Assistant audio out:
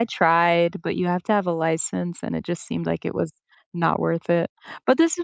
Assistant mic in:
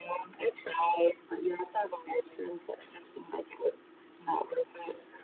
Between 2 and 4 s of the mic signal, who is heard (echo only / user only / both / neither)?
echo only